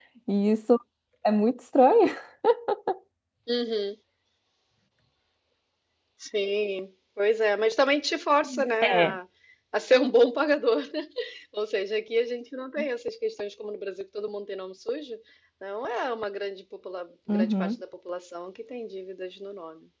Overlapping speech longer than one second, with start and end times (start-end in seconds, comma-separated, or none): none